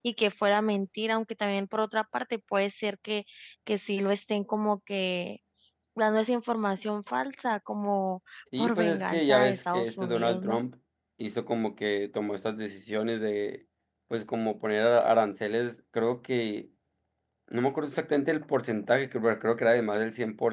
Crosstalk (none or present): present